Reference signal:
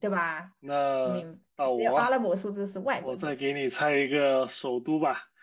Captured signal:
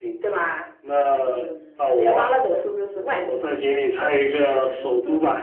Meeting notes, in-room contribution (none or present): present